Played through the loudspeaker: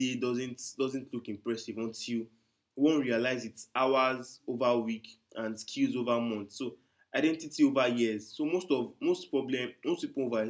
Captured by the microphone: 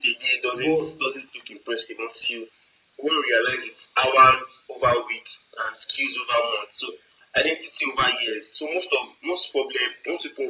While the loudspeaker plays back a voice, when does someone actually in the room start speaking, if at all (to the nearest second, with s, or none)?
1 s